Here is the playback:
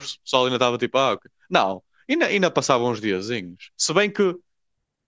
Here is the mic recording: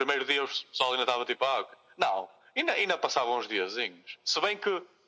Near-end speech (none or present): none